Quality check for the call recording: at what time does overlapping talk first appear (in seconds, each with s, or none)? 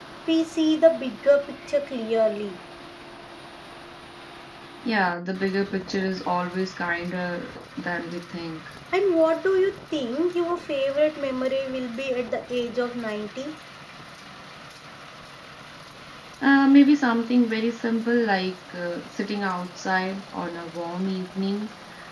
none